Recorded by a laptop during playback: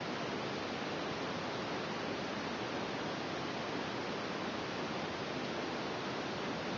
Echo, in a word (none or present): none